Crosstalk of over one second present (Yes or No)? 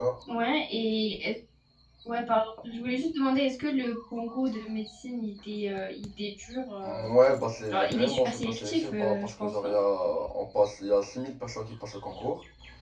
Yes